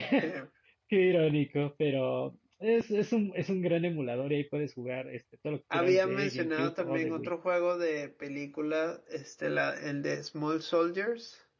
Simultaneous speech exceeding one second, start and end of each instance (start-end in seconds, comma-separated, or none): 5.7-7.3